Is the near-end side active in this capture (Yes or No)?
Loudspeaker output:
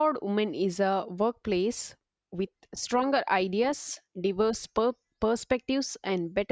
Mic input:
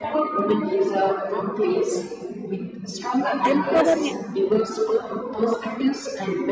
Yes